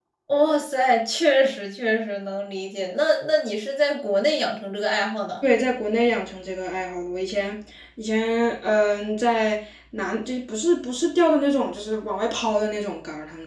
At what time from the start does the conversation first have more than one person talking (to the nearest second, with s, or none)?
none